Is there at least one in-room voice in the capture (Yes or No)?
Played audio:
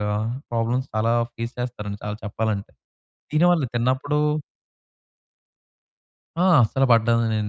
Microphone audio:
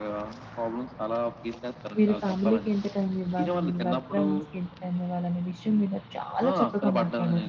Yes